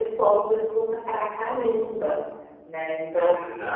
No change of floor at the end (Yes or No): No